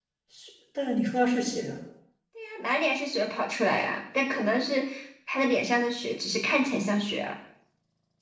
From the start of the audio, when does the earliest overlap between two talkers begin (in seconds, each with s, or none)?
none